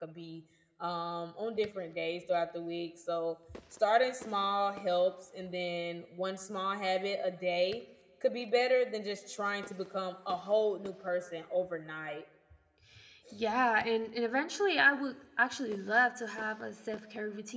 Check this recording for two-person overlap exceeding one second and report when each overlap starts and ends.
none

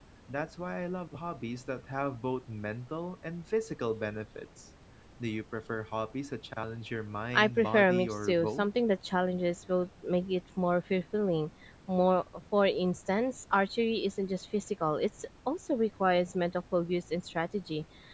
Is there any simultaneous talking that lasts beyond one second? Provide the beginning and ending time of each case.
7.3-8.7

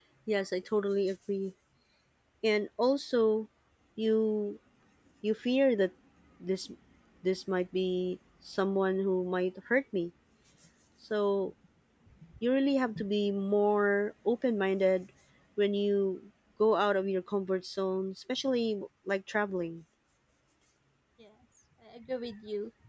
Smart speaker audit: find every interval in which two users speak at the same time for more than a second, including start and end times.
none

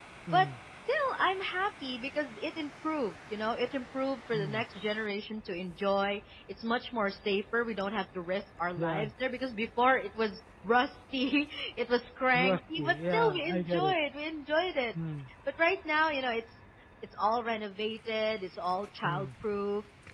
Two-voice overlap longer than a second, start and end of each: 12.3-13.9

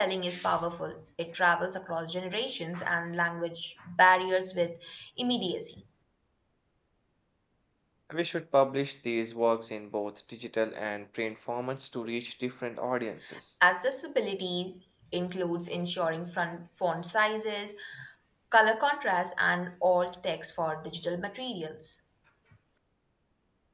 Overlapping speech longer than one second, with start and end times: none

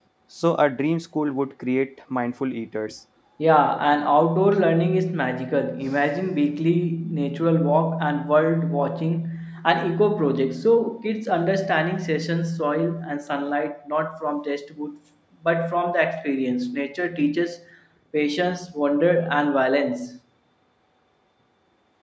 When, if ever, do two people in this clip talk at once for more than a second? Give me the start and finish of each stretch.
none

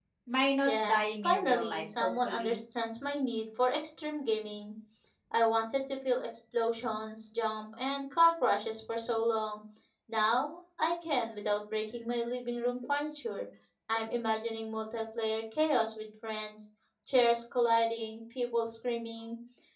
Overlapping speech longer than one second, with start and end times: 0.7-2.6

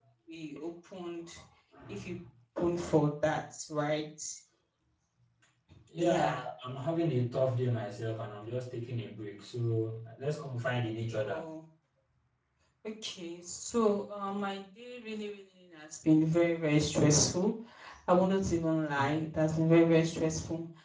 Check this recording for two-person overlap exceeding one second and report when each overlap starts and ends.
none

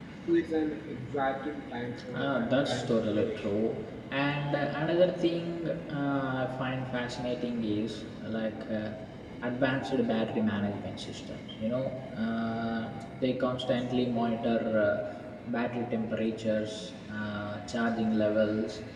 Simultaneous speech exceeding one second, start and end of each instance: 2.1-3.5

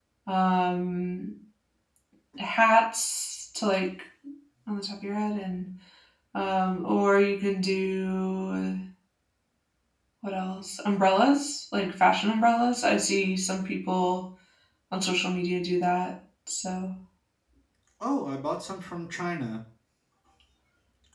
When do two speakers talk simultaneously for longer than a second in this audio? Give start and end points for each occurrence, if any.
none

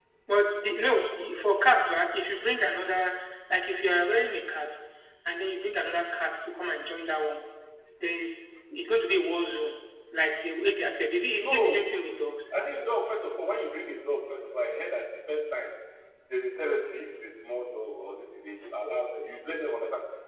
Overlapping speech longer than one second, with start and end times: none

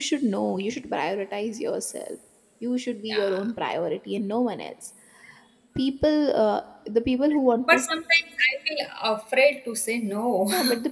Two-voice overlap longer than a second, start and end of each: none

